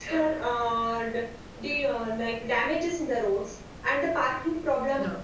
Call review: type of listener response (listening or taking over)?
listening